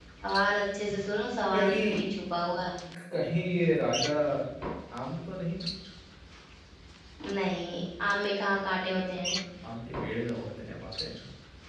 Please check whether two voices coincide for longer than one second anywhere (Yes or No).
No